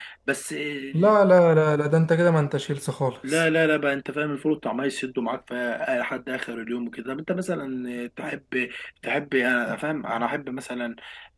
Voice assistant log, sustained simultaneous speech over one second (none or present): none